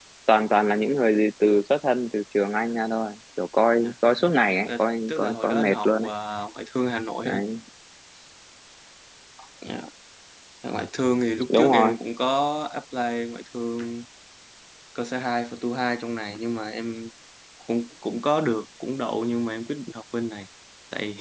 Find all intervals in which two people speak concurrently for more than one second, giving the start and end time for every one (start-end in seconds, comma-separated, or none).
4.7-6.1